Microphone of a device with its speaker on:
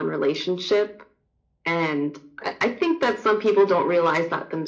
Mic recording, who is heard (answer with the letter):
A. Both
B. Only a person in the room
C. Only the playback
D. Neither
C